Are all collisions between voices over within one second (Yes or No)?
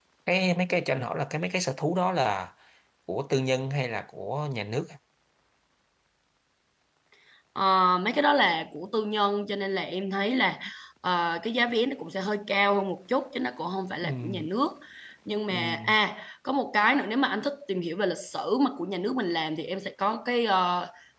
Yes